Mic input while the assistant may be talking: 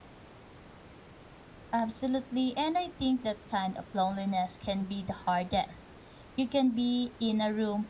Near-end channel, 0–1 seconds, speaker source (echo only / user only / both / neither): neither